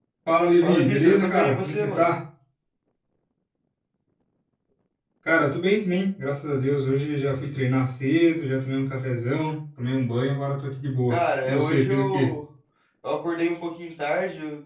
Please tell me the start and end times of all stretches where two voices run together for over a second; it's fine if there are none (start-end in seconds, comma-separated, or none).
0.6-2.1, 11.1-12.3